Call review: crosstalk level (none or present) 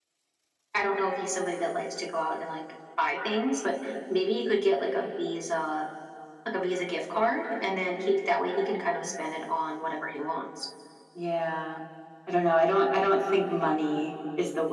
none